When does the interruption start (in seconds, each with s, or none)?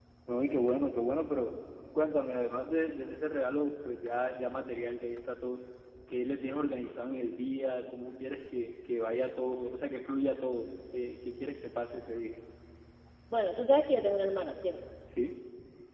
none